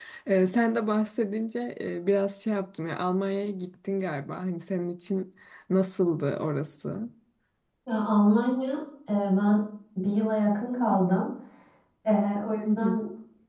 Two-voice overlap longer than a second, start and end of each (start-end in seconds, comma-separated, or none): none